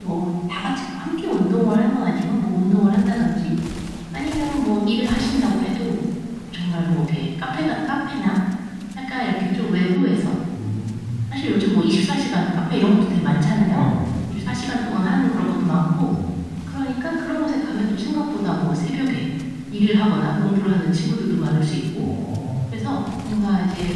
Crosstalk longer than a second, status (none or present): none